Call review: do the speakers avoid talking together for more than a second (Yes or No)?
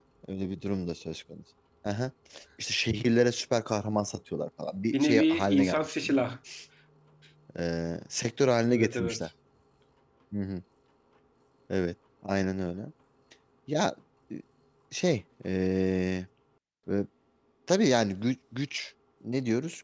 No